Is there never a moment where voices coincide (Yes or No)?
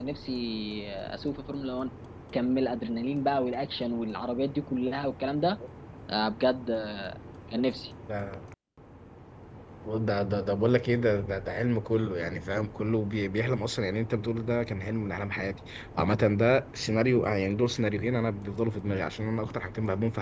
Yes